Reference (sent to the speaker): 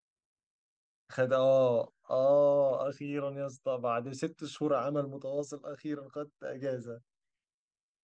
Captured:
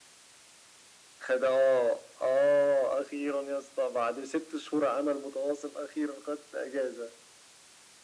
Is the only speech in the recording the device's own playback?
Yes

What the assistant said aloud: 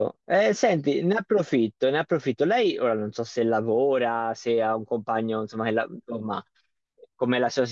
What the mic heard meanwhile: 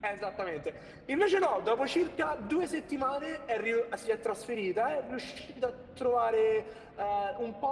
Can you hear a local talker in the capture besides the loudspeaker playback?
Yes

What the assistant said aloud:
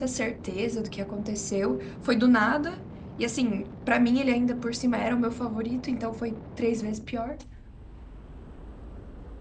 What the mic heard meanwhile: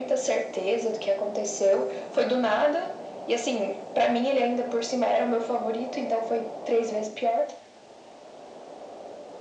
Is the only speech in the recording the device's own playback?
Yes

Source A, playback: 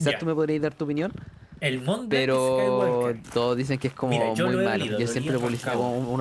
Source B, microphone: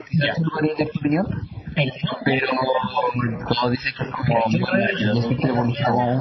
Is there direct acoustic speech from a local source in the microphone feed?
Yes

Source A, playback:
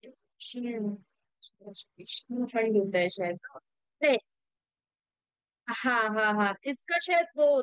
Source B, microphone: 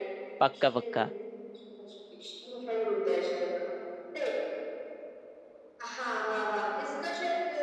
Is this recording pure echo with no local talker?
No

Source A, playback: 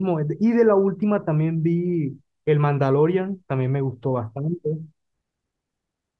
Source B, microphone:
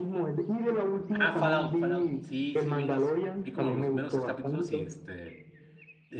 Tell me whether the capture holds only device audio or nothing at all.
No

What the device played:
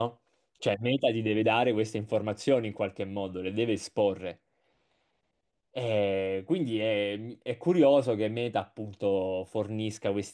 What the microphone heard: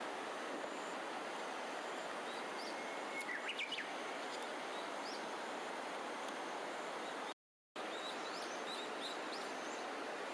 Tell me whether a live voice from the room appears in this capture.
No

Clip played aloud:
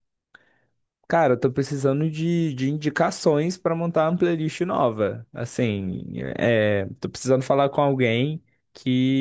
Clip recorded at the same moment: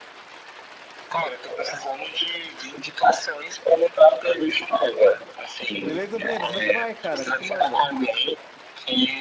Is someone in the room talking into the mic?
Yes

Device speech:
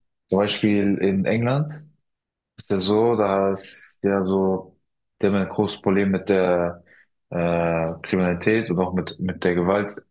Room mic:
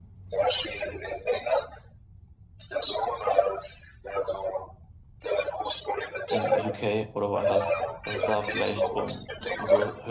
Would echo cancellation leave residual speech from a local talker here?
Yes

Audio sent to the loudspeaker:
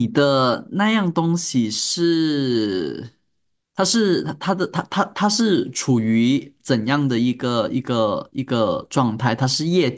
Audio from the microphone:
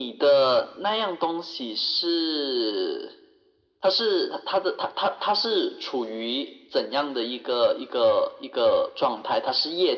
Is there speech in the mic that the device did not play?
No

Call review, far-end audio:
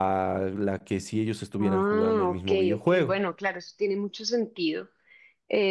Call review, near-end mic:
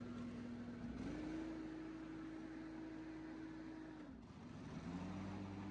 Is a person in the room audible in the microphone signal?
No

